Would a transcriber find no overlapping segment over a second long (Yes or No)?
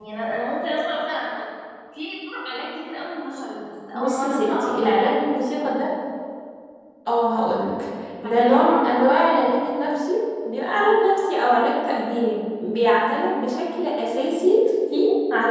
No